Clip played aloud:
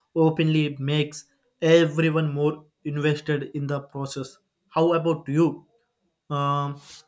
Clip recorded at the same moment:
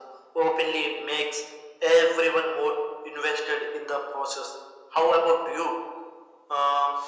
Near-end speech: none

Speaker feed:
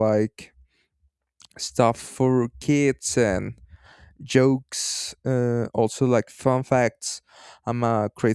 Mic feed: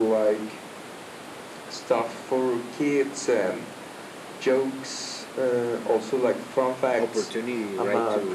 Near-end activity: present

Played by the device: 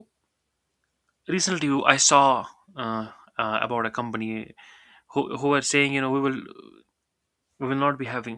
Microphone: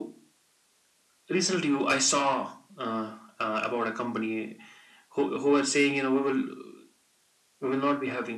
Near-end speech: none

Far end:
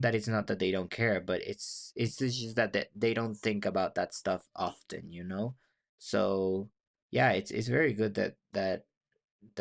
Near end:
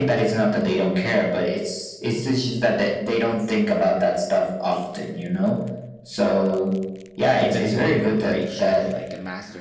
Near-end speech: present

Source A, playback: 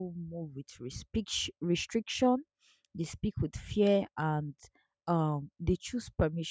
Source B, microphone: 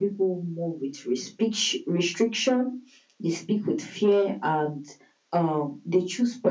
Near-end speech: none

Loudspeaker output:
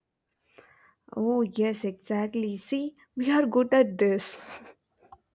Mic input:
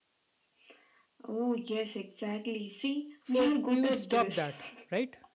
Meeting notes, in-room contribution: present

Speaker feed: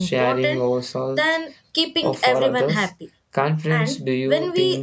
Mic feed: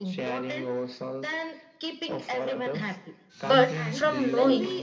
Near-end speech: present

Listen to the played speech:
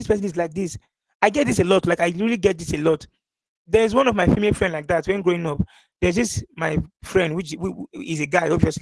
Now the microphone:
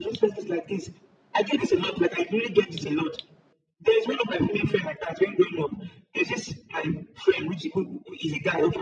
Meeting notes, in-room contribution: none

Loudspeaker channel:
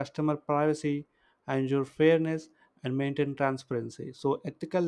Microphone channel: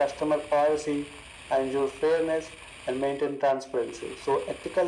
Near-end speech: none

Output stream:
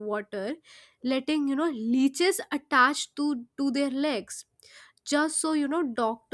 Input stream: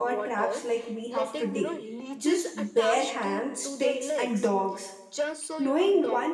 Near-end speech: present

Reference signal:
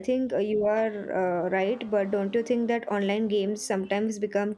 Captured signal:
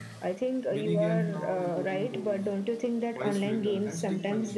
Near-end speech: present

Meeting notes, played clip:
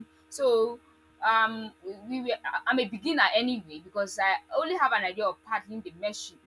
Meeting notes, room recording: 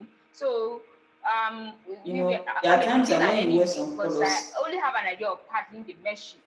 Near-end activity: present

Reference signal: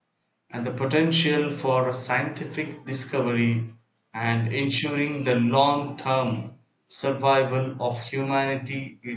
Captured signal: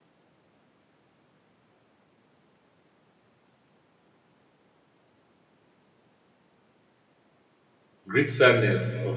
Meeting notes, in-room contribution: present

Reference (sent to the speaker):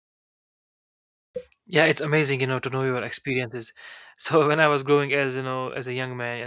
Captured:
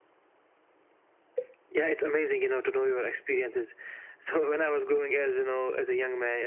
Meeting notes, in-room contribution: none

